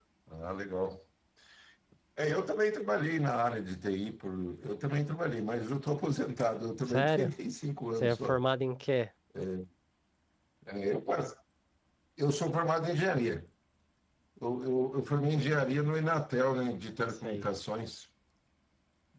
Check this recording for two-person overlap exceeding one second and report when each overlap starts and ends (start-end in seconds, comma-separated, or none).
none